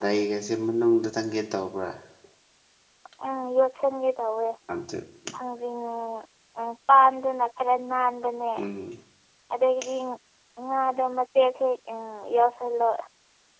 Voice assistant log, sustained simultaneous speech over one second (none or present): none